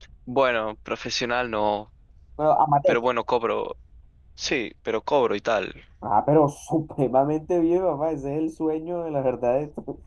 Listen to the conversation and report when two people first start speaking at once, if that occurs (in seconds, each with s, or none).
none